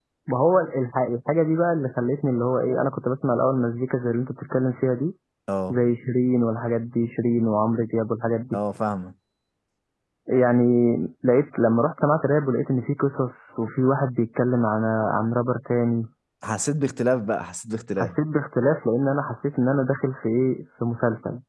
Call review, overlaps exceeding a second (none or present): none